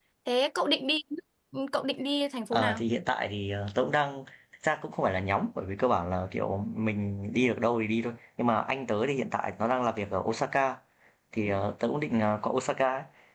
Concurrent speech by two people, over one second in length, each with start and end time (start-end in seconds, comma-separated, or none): none